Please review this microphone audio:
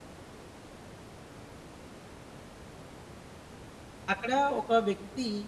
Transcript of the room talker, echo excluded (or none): అక్కడ ఒక వ్యక్తి